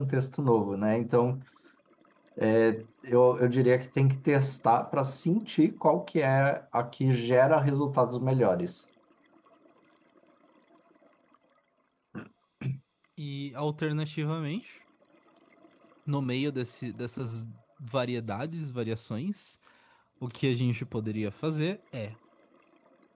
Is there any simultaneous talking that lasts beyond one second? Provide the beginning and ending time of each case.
none

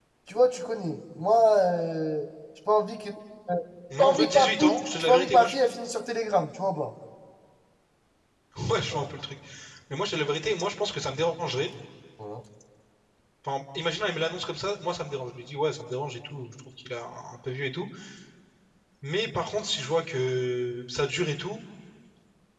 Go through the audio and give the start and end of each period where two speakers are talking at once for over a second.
4.0-5.5

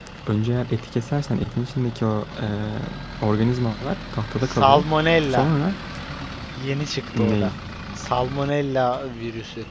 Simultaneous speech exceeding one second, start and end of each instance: none

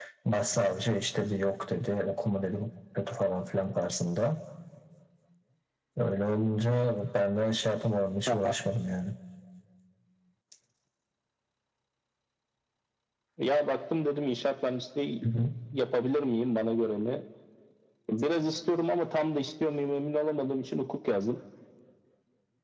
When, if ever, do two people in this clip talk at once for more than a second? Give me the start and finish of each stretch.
none

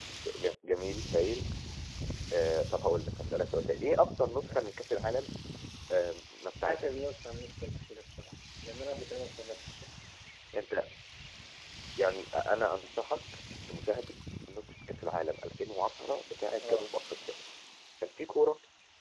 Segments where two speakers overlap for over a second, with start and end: none

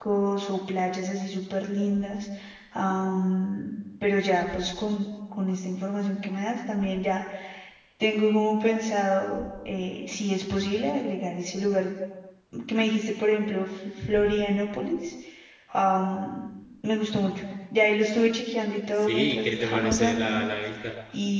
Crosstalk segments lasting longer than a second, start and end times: 19.0-20.5

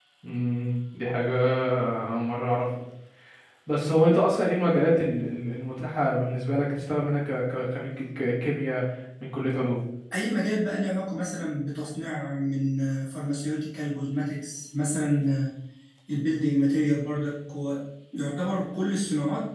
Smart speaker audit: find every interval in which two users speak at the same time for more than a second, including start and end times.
none

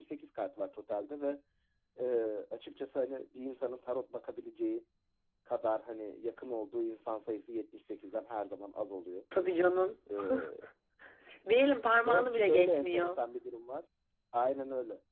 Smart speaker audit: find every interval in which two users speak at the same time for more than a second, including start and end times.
11.9-13.2

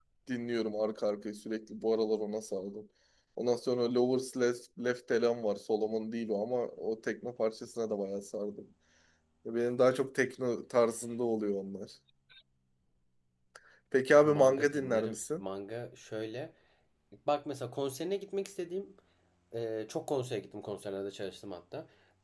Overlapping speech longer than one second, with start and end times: 14.1-15.4

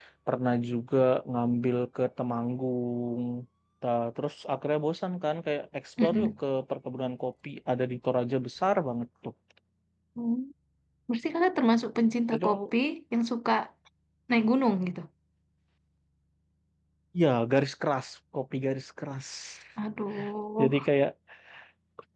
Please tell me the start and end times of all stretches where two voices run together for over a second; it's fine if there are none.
none

